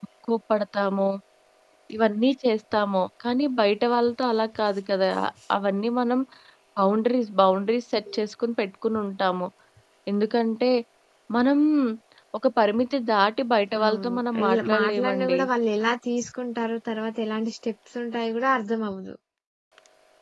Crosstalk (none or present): present